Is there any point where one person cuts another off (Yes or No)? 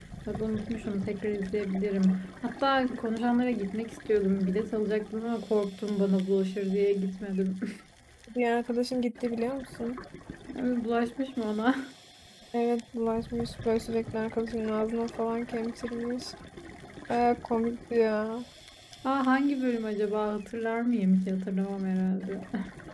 No